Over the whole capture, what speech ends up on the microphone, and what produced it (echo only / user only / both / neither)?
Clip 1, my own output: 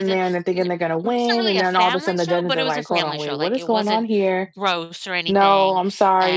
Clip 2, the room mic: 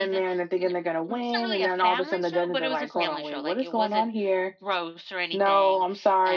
echo only